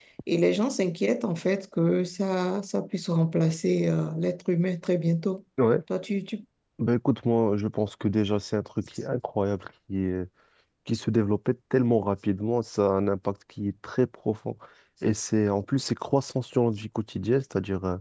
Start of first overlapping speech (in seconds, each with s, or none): none